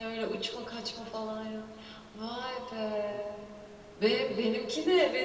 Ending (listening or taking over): listening